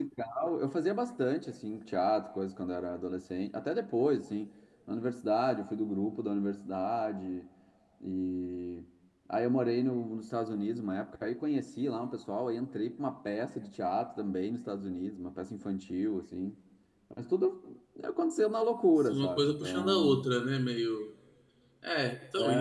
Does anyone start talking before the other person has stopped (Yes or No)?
Yes